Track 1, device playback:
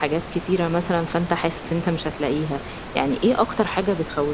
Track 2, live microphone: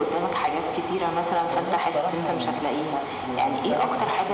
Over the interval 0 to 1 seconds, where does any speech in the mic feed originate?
echo only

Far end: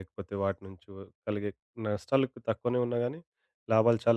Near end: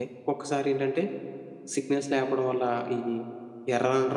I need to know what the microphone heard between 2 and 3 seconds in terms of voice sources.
user only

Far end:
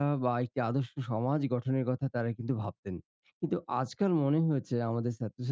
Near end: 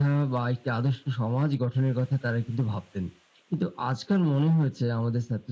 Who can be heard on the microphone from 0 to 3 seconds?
echo only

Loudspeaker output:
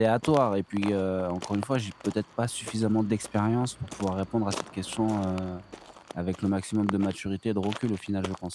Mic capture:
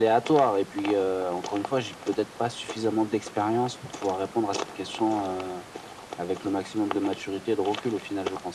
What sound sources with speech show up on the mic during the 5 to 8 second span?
echo only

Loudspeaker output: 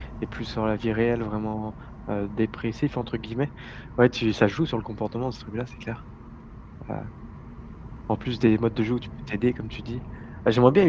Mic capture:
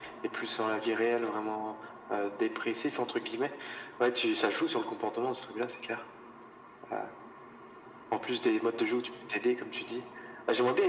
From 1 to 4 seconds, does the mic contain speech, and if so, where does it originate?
echo only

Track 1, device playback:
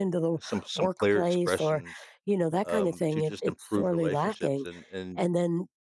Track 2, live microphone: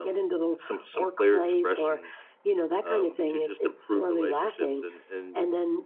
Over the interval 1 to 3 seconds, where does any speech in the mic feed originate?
echo only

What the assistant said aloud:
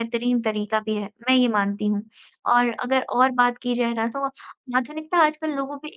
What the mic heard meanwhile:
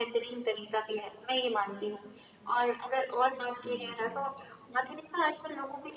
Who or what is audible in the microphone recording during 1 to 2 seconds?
echo only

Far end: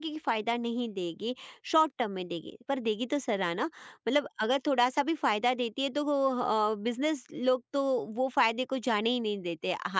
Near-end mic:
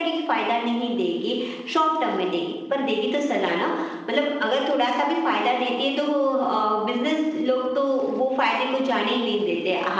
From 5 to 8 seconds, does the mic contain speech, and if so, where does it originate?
echo only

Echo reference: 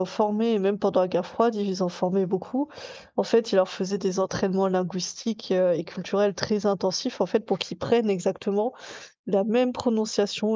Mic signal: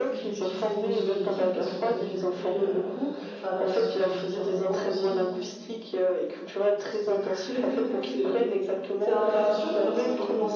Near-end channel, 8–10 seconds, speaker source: both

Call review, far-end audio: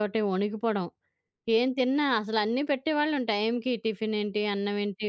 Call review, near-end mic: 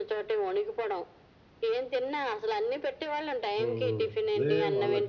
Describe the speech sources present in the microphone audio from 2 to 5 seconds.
both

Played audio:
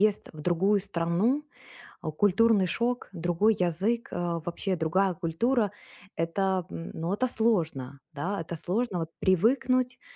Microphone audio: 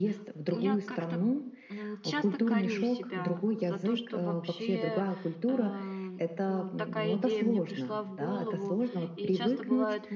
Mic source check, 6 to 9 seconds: both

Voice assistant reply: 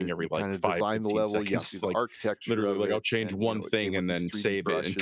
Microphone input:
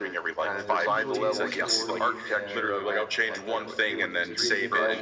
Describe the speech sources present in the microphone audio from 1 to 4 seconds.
both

